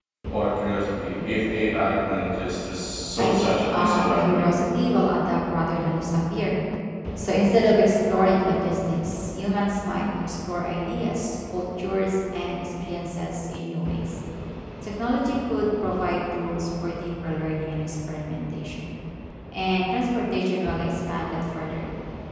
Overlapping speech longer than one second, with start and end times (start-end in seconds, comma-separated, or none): 3.2-4.4